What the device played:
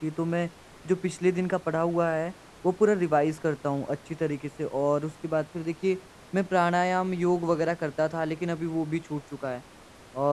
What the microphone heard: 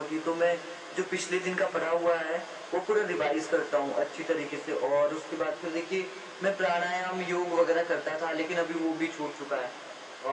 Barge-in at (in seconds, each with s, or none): none